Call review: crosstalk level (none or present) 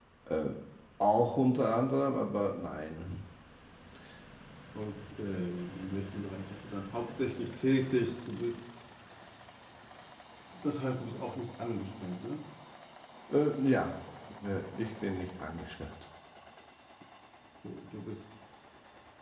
none